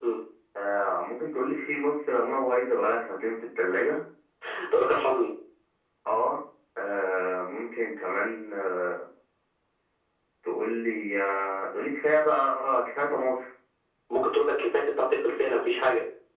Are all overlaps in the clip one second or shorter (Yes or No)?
Yes